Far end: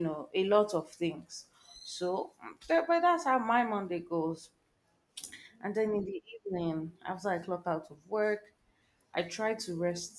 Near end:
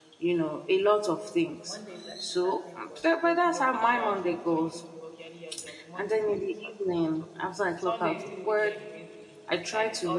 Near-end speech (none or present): present